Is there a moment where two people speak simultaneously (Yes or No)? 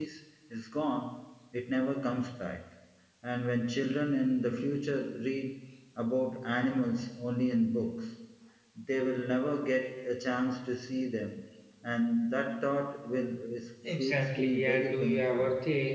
Yes